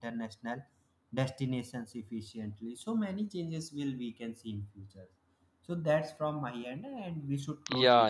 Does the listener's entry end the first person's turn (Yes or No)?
Yes